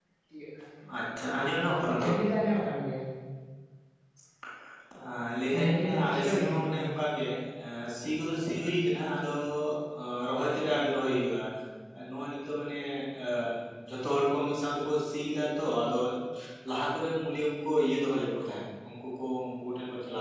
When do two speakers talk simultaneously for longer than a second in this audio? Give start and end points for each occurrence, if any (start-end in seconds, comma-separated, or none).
5.5-6.8